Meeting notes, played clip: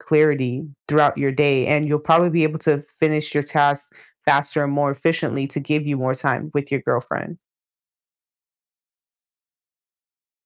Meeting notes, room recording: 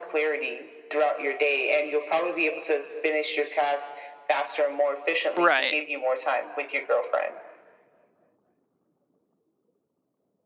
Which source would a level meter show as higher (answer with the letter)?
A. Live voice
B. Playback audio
A